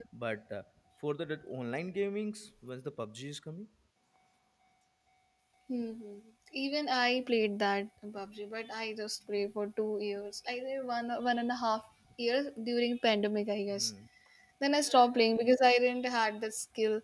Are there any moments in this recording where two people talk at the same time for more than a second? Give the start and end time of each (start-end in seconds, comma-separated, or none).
none